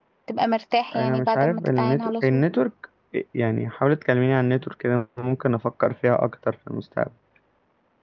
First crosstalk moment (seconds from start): 1 s

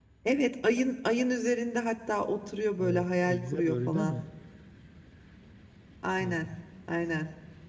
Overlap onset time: 3 s

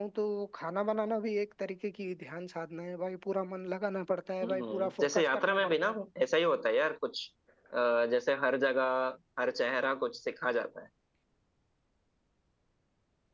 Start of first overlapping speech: 4 s

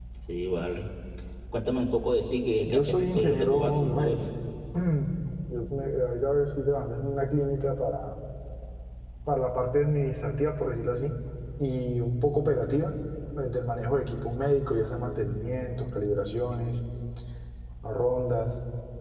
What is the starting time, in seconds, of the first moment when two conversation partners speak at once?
3 s

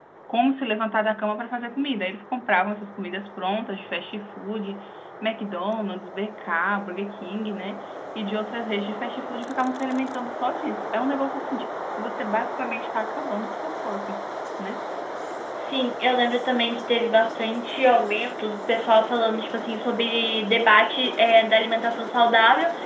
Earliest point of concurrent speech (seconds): none

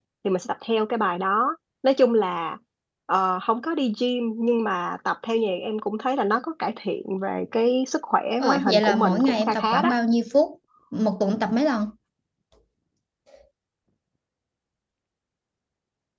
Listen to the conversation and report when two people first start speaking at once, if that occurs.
8 s

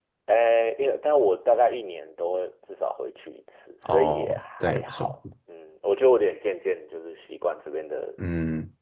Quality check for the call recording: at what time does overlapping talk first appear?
4 s

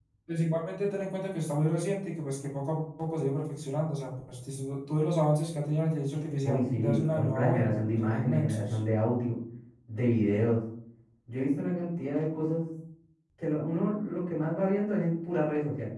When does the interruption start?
6 s

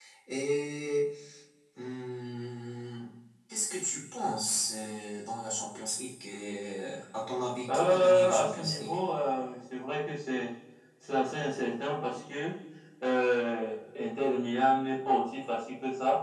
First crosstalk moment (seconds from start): 8 s

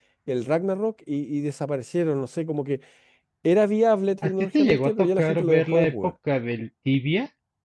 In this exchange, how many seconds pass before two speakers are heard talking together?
4 s

